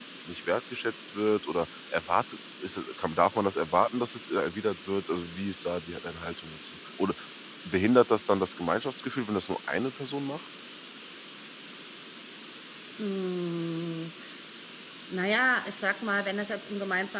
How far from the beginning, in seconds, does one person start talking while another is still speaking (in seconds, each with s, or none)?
none